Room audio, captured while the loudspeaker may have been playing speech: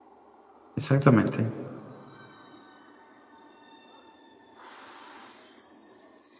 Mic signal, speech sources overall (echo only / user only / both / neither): user only